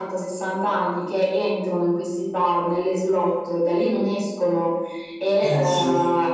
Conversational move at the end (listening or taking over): listening